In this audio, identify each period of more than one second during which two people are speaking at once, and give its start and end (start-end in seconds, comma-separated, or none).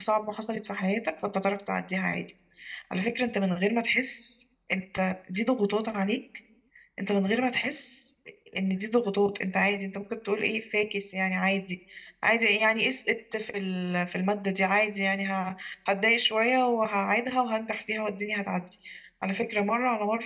none